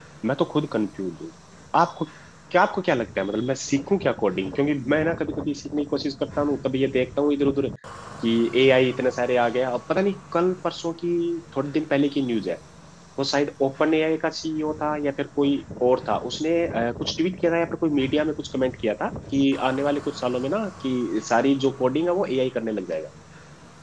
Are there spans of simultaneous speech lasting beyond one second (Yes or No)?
No